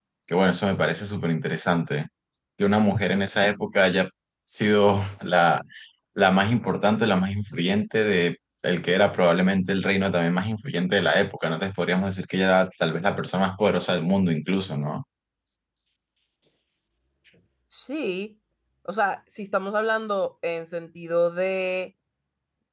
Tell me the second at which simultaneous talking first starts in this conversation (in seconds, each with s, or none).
none